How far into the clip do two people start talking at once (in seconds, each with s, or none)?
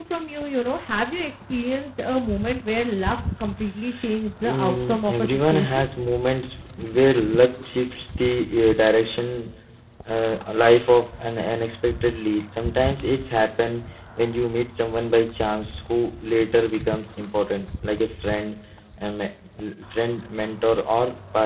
4.4 s